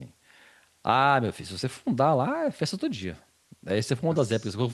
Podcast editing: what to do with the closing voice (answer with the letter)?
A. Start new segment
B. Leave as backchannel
B